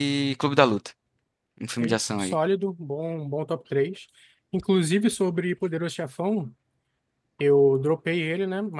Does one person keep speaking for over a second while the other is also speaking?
No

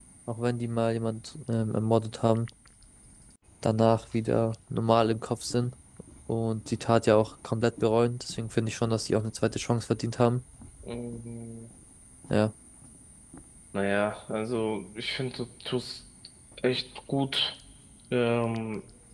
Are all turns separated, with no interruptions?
Yes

